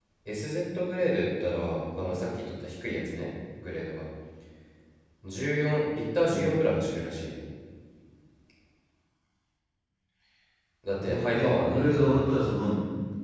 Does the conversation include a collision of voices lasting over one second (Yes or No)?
Yes